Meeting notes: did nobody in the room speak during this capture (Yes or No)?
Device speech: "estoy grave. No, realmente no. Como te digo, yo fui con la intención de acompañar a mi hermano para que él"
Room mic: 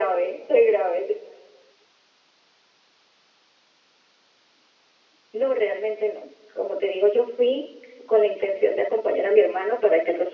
Yes